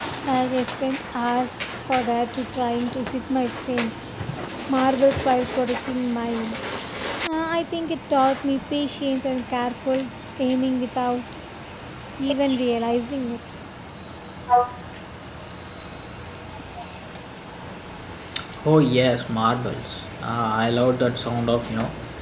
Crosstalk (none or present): none